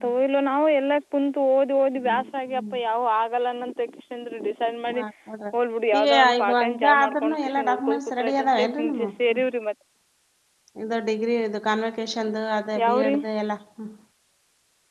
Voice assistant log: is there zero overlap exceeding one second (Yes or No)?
No